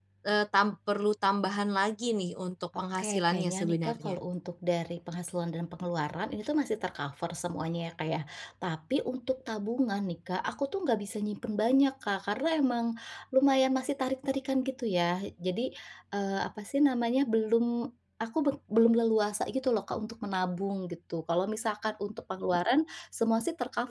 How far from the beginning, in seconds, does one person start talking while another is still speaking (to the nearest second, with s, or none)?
3 s